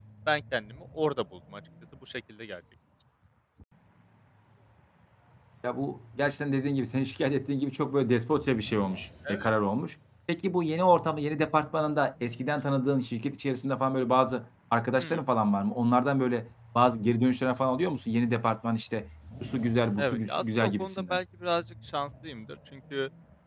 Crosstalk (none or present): present